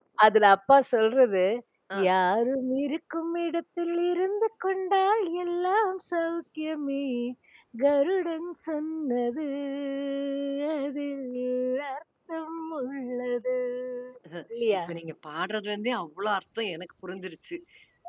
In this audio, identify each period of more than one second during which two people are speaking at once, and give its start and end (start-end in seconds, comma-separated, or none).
none